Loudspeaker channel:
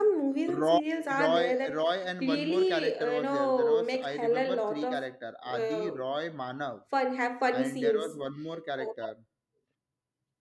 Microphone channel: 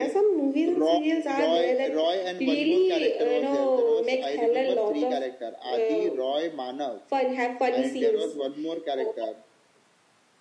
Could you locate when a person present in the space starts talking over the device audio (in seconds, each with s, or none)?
none